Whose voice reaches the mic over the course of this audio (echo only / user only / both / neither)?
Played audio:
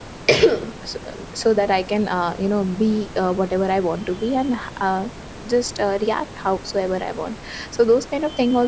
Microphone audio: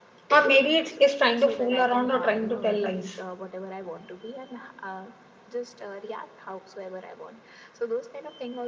both